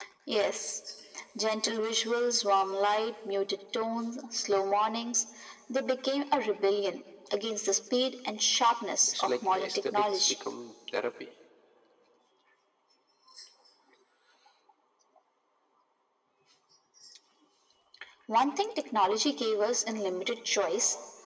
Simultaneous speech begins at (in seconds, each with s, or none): 9.1 s